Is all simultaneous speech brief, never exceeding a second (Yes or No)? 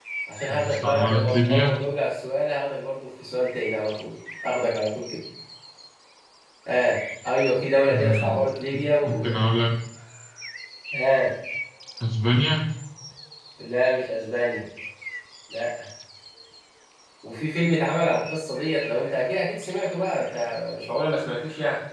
No